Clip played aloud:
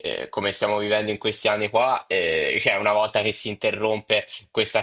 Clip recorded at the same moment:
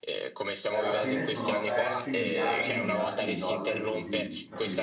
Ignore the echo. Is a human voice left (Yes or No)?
Yes